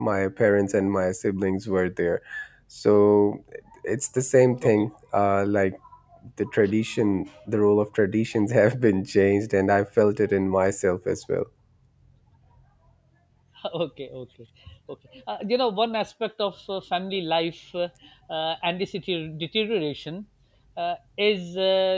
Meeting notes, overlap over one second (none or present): none